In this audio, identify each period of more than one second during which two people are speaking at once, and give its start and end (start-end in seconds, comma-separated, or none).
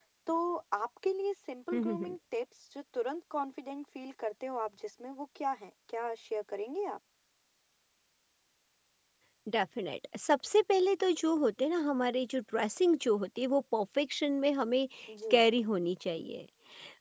none